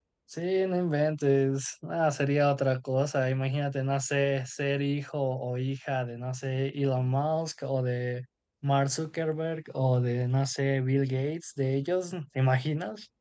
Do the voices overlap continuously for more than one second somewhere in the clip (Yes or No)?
No